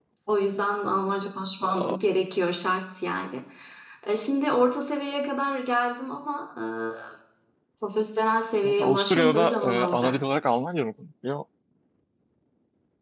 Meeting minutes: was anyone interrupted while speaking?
Yes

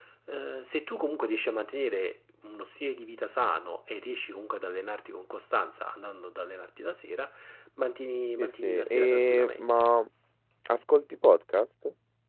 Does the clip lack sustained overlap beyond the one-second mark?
No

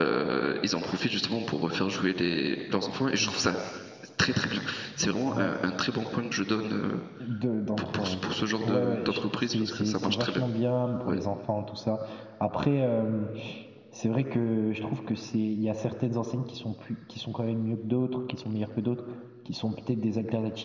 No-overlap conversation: No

